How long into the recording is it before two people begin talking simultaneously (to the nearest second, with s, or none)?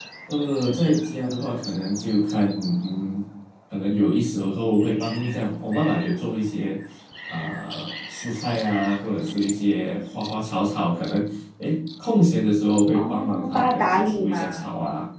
13 s